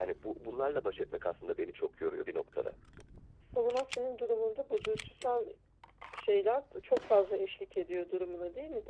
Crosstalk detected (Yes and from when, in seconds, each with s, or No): No